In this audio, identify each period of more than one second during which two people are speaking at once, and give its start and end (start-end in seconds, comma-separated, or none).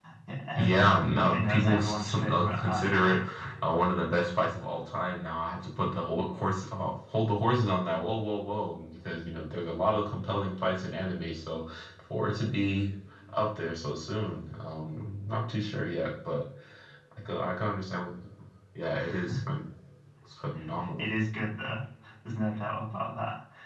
0.6-3.2